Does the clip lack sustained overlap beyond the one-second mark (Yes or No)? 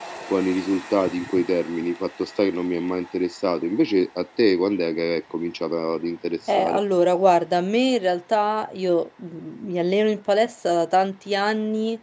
Yes